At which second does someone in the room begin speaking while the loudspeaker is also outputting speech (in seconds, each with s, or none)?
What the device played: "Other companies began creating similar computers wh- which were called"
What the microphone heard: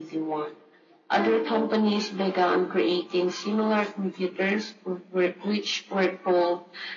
none